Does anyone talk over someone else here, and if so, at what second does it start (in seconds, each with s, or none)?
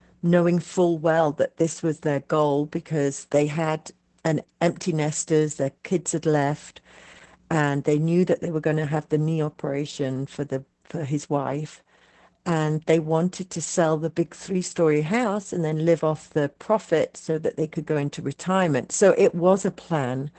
none